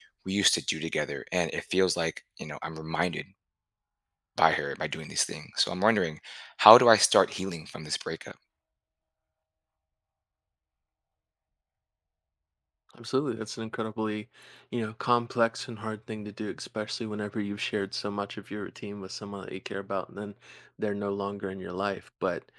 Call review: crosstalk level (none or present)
none